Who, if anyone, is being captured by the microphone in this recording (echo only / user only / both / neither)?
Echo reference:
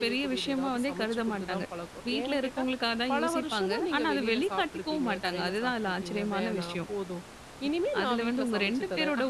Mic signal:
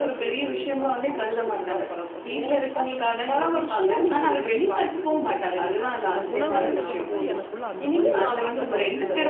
both